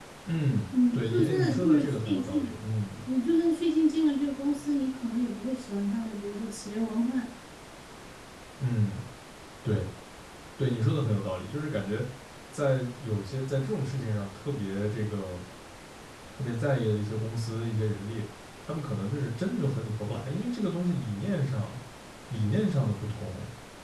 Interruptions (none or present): present